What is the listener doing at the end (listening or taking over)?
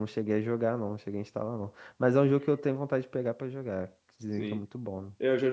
taking over